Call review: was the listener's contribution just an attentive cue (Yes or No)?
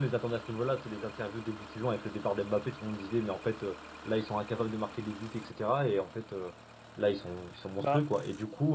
Yes